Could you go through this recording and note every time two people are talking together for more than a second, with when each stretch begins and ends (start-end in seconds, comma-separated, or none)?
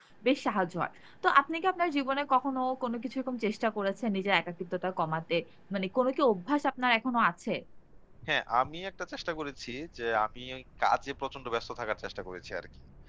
none